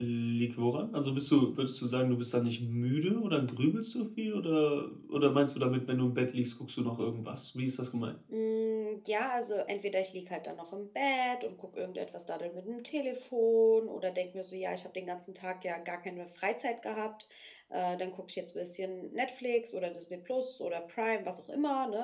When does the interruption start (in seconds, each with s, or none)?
none